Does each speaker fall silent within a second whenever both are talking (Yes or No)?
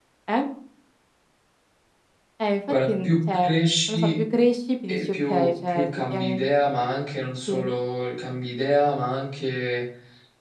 No